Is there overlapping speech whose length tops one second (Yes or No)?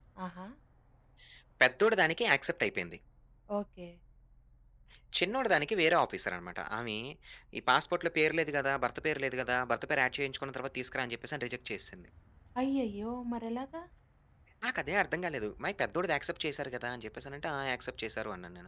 No